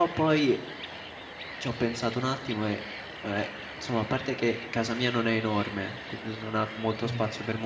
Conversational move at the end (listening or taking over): listening